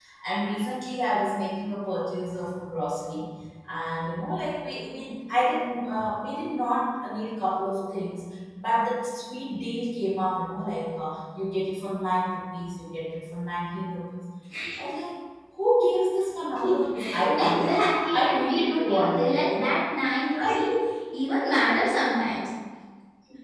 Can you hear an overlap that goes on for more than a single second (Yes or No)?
Yes